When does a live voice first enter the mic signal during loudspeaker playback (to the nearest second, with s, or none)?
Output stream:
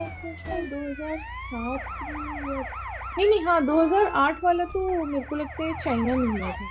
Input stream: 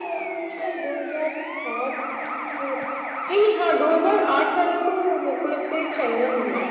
none